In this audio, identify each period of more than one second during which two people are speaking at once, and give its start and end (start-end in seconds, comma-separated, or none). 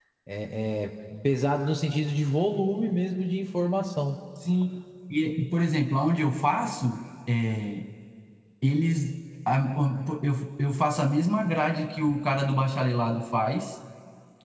none